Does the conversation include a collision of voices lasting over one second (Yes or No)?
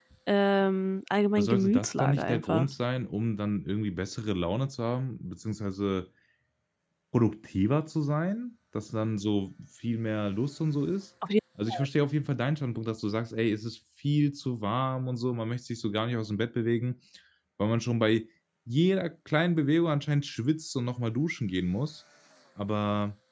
Yes